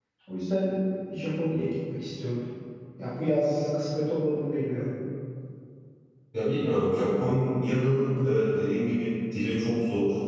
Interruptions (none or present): none